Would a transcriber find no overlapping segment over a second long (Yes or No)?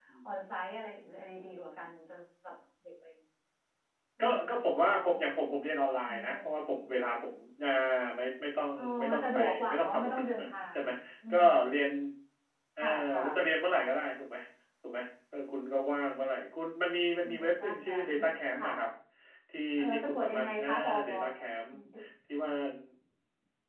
No